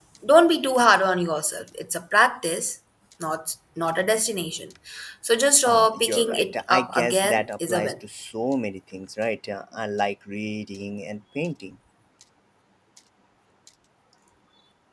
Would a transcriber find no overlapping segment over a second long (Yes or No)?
No